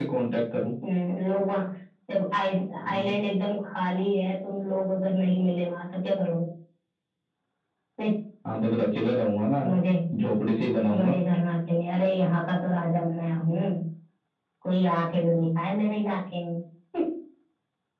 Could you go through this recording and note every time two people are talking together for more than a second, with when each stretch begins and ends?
none

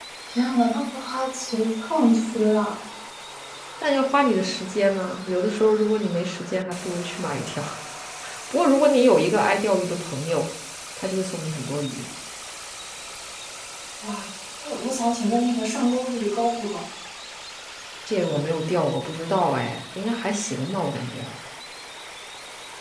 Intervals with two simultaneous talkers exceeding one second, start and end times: none

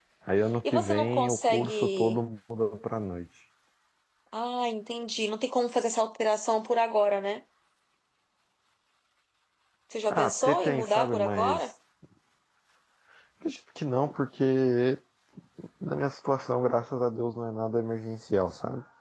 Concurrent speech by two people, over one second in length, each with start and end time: 0.6-2.2, 10.1-11.6

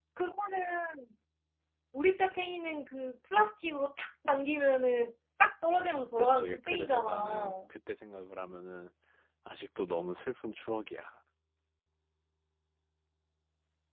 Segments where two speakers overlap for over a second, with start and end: 6.2-7.6

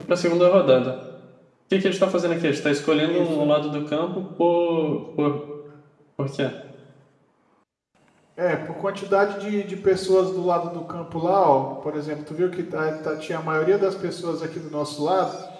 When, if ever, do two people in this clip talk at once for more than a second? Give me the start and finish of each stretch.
none

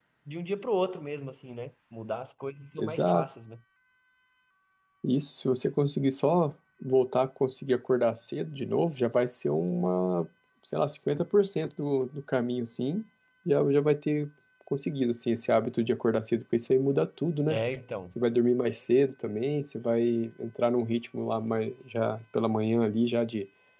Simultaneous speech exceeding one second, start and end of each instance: none

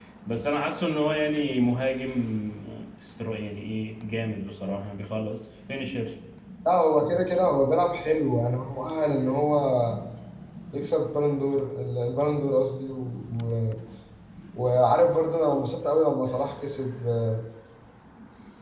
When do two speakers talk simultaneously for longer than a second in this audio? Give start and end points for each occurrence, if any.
none

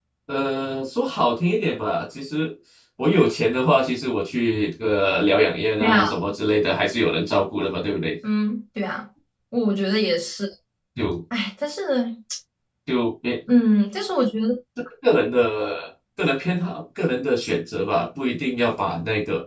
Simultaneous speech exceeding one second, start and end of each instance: none

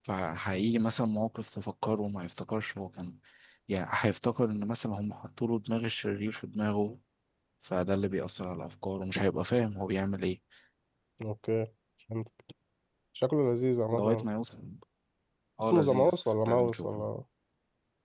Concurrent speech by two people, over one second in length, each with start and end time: 15.6-17.0

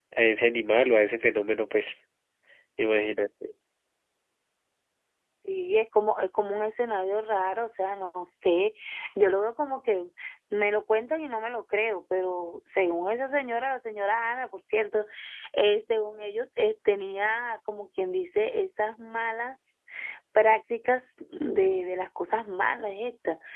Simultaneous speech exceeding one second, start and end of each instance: none

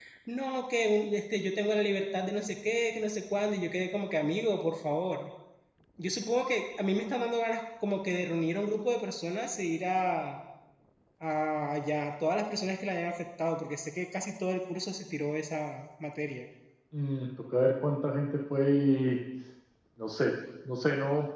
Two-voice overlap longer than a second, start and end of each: none

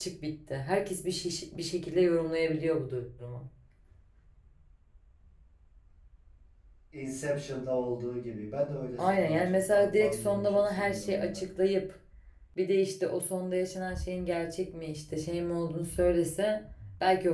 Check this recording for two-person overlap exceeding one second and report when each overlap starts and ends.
9.0-11.5

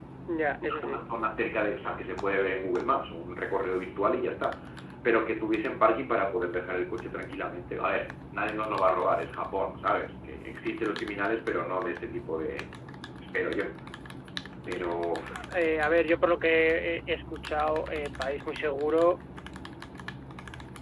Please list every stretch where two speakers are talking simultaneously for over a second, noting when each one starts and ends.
none

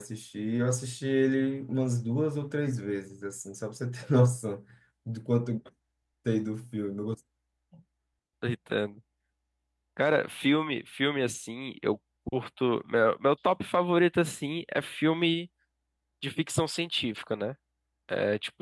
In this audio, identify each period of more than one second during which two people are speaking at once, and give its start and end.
none

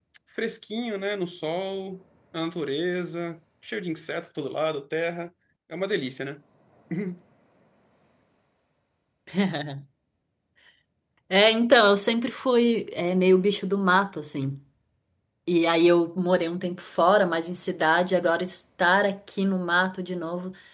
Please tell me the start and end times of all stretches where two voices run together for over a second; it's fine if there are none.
none

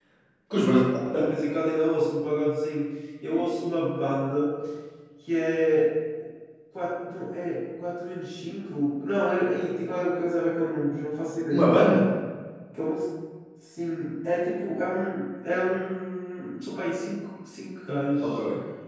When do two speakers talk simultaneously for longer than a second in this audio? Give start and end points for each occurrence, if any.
none

